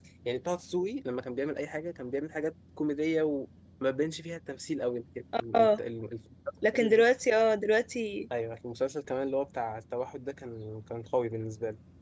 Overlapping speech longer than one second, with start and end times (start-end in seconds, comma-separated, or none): none